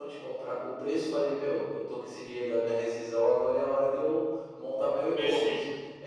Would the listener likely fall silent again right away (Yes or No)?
Yes